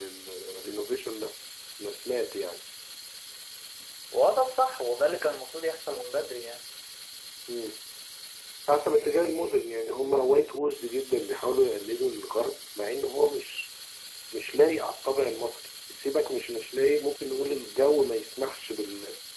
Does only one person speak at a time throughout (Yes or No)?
Yes